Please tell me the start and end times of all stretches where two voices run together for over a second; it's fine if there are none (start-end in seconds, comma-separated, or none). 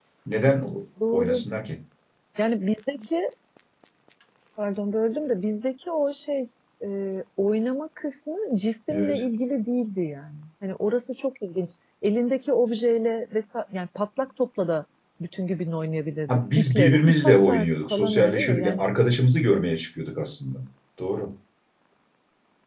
16.3-18.8